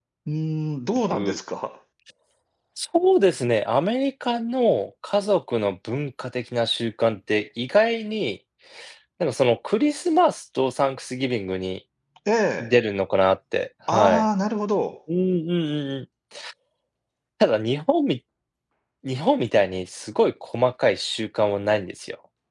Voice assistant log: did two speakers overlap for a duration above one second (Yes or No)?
No